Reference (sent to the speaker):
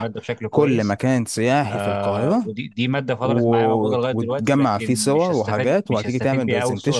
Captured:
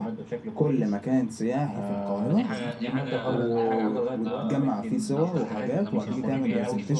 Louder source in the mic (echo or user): echo